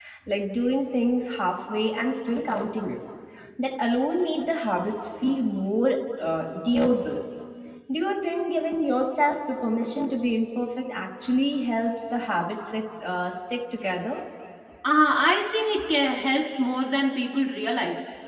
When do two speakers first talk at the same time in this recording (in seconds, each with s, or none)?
none